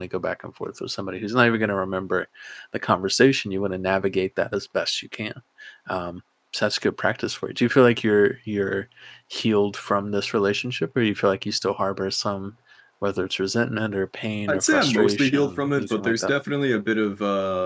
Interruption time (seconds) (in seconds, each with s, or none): 14.5 s